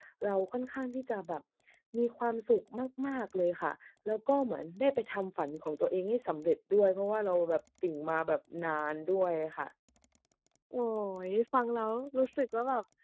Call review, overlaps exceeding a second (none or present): none